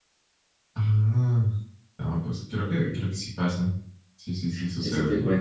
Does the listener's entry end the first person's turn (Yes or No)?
Yes